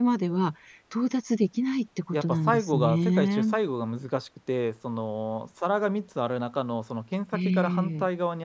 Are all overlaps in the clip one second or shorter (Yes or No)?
No